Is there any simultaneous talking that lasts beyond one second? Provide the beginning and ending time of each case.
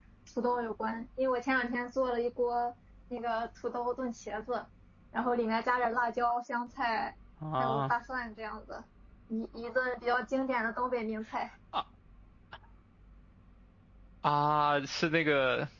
none

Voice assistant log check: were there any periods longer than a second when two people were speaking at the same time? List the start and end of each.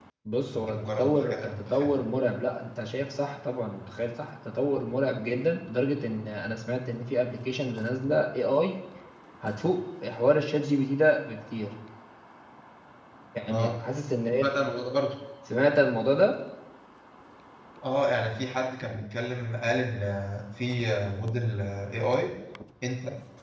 0.6-2.0

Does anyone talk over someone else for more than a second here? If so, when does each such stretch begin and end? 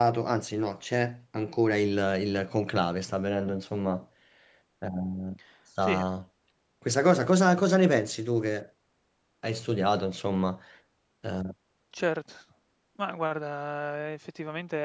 none

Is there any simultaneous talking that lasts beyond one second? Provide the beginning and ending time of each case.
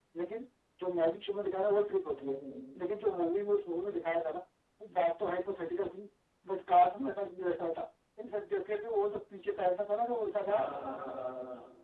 none

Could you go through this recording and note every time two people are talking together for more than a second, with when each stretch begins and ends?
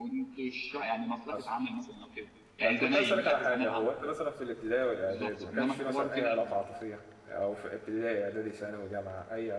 2.6-3.9, 5.1-6.3

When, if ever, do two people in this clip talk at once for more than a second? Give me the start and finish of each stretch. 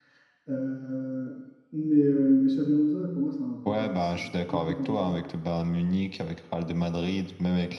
3.7-5.2

